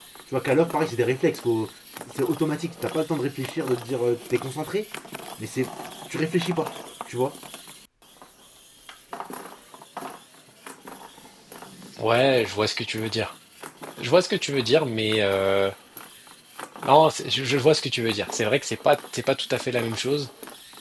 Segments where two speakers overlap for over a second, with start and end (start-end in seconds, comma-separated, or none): none